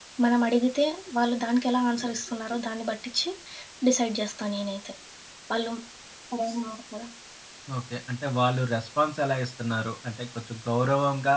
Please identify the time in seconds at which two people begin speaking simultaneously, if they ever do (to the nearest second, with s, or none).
none